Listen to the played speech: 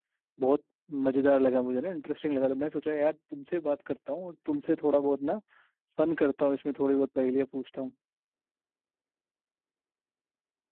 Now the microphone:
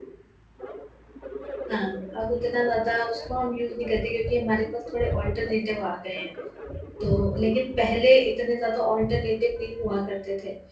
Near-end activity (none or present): present